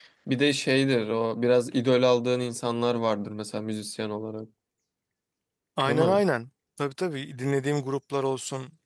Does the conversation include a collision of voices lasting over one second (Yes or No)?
No